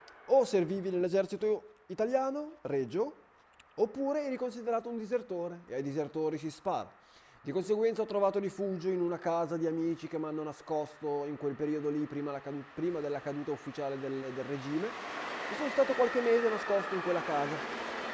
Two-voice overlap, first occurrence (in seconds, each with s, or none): none